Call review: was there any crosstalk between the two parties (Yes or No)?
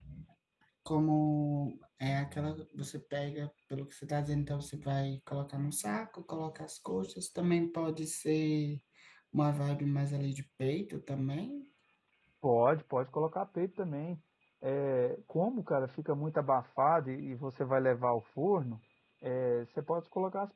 No